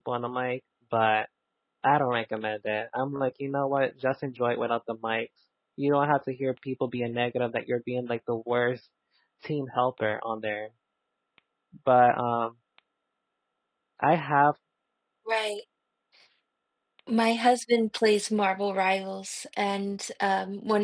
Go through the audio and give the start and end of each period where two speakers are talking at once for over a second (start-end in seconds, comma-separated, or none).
none